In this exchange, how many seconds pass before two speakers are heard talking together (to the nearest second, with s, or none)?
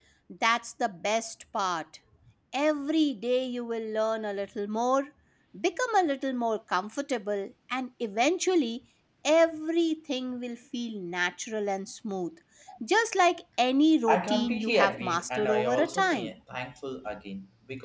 14 s